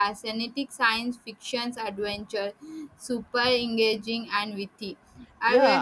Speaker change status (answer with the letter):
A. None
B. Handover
B